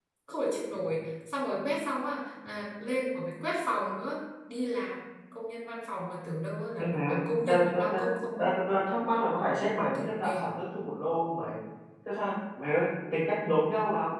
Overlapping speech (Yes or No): Yes